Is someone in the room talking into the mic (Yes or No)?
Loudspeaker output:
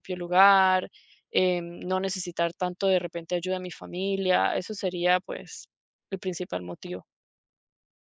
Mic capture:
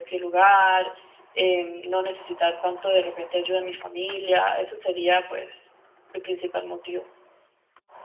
No